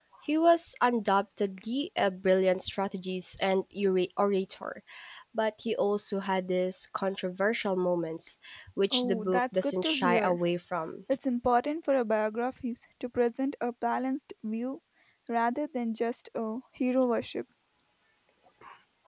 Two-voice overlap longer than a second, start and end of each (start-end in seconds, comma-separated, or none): 8.9-10.4